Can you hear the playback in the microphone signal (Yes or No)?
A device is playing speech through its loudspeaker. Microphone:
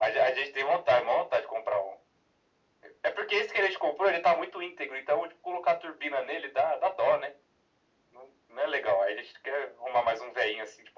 Yes